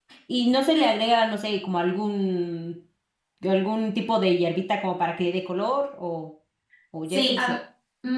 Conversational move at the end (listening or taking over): taking over